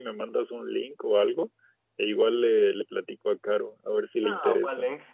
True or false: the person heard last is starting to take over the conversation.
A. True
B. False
A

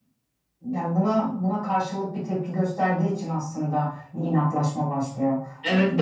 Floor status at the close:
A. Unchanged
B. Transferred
B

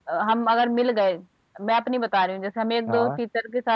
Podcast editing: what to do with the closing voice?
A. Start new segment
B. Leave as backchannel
B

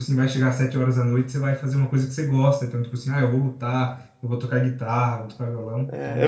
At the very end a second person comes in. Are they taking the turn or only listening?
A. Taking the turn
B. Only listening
A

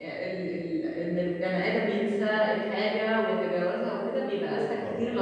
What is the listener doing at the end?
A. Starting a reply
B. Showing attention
B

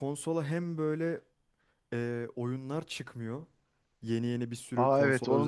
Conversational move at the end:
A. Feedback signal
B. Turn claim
B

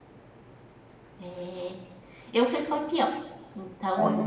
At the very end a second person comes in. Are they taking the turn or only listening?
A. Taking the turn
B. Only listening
B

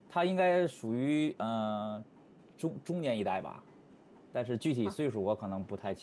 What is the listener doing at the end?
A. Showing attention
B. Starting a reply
A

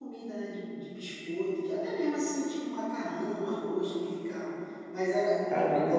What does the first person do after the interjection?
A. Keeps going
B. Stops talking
B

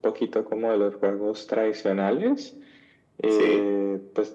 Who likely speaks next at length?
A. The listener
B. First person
B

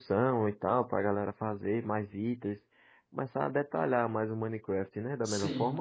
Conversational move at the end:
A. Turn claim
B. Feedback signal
A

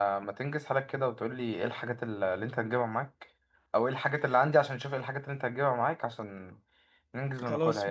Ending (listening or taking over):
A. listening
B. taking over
B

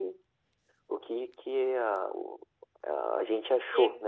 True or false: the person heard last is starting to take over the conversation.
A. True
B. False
A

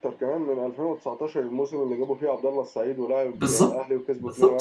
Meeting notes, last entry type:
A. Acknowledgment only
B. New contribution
B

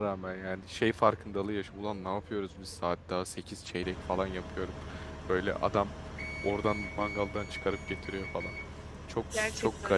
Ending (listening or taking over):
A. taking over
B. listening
A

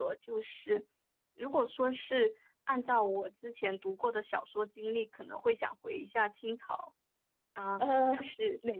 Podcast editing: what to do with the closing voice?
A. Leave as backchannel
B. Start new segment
B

